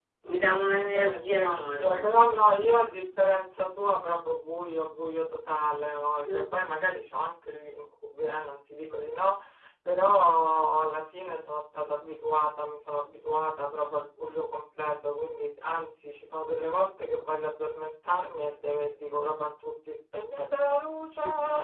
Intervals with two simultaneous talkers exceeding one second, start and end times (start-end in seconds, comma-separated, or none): 0.5-2.1